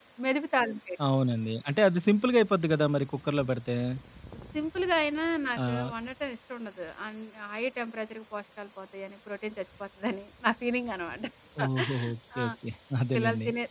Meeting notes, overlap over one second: none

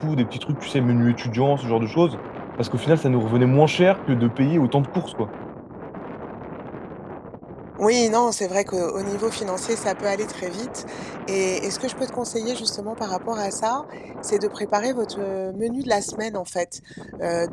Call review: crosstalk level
none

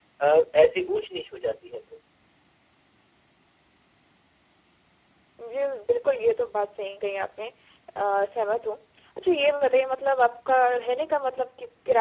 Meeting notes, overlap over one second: none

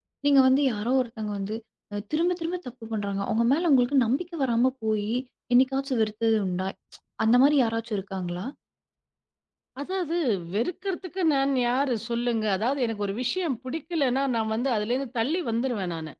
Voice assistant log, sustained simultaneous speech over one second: none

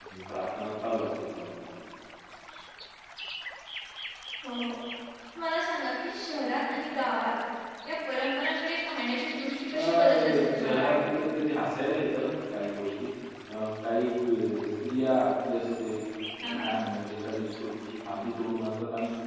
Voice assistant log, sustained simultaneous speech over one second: present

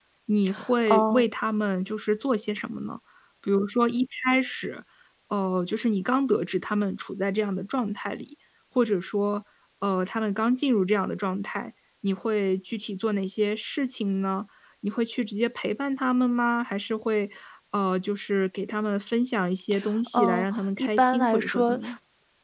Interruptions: present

